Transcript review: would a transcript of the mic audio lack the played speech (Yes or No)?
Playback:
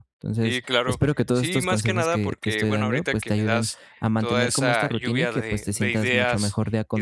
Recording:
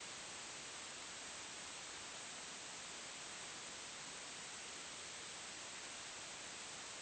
Yes